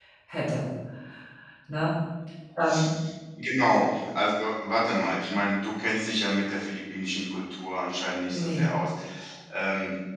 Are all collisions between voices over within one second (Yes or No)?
Yes